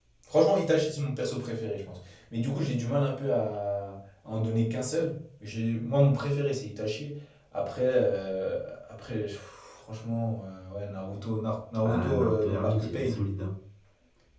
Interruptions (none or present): present